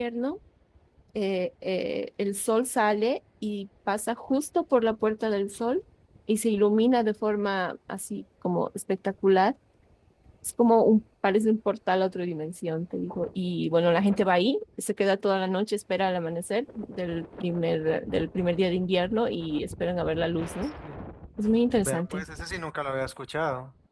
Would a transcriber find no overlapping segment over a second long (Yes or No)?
Yes